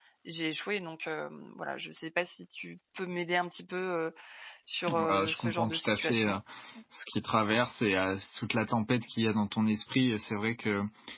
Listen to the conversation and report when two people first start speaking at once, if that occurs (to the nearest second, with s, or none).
5 s